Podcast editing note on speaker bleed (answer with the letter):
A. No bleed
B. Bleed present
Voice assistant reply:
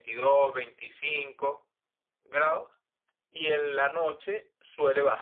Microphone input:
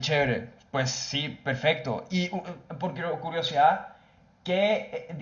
A